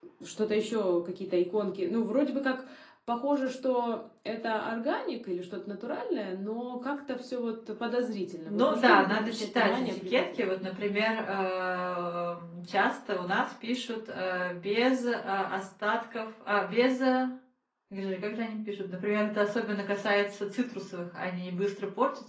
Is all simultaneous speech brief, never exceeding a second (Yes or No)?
No